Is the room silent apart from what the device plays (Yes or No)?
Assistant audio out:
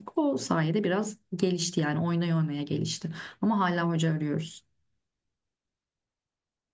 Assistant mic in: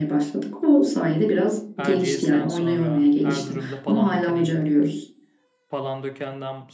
No